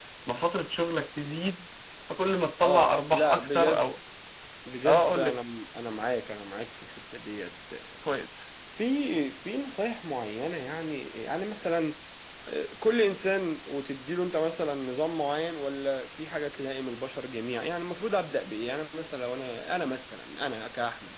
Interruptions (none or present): present